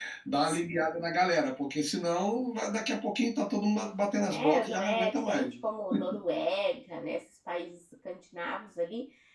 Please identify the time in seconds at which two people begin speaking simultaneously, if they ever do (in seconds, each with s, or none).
4.3 s